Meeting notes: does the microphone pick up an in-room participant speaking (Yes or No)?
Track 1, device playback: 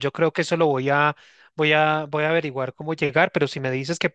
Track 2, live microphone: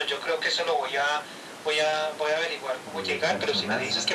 Yes